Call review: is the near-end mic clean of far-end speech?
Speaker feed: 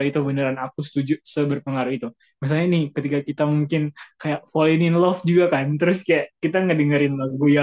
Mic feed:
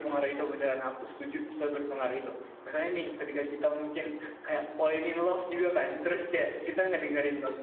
No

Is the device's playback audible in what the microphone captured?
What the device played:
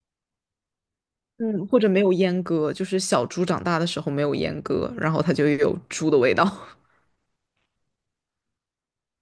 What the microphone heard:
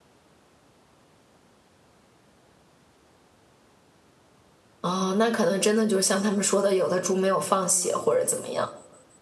No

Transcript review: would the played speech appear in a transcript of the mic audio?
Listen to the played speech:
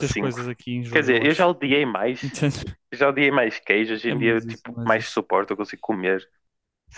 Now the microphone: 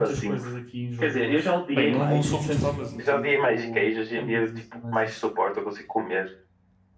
Yes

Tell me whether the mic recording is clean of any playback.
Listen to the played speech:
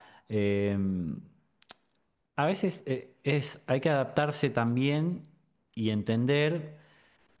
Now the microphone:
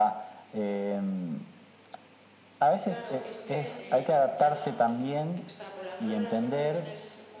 No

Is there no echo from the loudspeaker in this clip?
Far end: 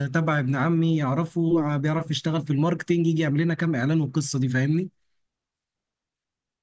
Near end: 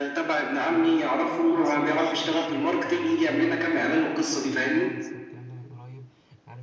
No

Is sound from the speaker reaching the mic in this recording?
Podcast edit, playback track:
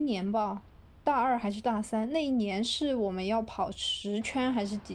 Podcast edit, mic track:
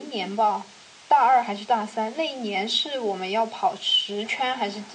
Yes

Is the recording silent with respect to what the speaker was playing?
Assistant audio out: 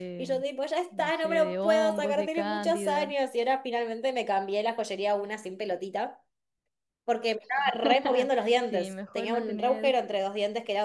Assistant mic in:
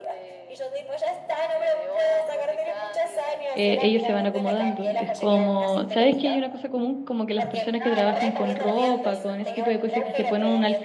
No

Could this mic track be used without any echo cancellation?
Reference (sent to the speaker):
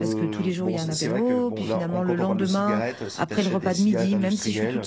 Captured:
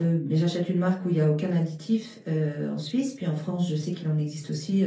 Yes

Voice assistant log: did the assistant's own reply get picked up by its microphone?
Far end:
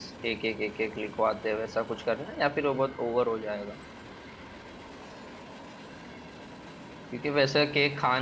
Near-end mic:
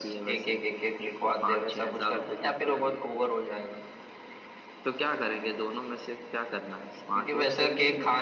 Yes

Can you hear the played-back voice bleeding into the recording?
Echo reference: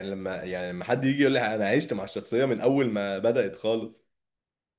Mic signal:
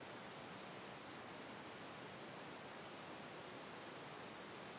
No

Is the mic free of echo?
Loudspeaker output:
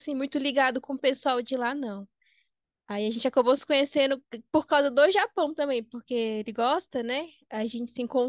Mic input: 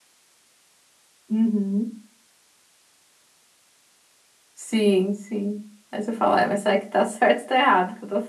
Yes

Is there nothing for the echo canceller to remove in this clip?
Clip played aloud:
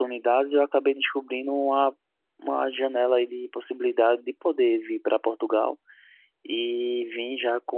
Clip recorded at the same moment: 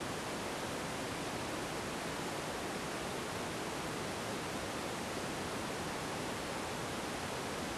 Yes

